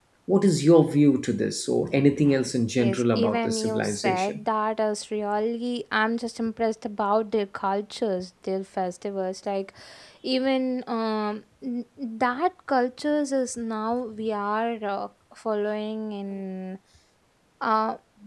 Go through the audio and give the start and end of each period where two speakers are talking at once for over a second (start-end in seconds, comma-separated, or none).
2.8-4.4